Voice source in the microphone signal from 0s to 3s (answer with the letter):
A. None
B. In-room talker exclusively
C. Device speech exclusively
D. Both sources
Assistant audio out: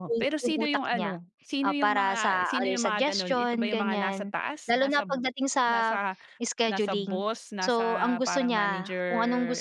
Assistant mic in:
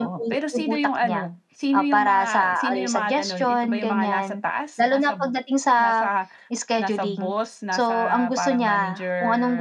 C